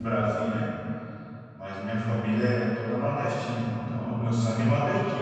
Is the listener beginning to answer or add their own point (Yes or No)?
Yes